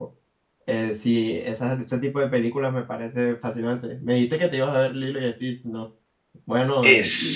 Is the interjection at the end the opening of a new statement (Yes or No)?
Yes